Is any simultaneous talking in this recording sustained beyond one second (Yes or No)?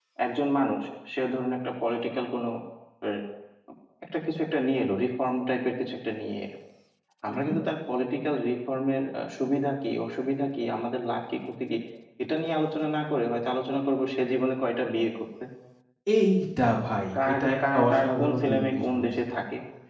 Yes